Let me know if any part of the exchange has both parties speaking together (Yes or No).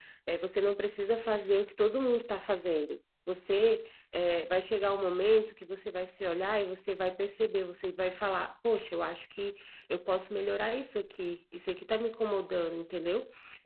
No